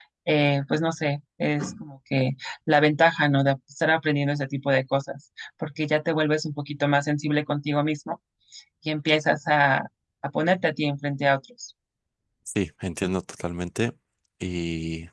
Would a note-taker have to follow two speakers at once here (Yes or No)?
No